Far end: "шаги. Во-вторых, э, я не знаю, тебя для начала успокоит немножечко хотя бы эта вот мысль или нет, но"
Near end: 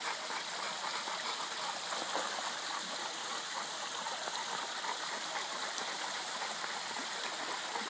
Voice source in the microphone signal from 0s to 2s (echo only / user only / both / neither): neither